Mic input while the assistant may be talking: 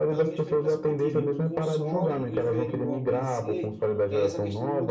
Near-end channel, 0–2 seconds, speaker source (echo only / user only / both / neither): both